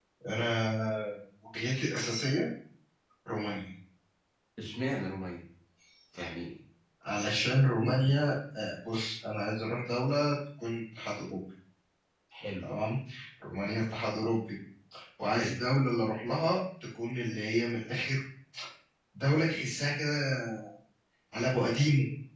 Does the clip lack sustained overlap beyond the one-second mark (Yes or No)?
Yes